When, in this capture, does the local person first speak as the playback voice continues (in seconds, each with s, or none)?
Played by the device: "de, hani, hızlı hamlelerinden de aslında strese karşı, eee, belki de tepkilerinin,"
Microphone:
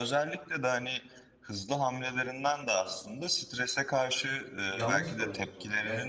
4.7 s